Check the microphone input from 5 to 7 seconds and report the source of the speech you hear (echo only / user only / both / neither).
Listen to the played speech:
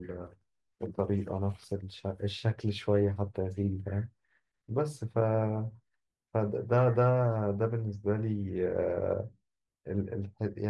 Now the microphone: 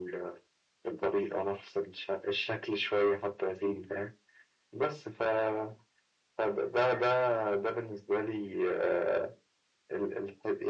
echo only